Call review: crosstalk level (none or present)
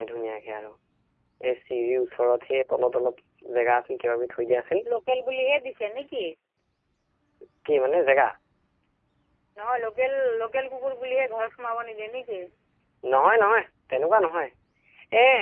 none